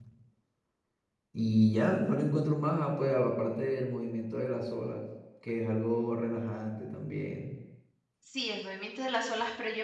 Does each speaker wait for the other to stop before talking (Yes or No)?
Yes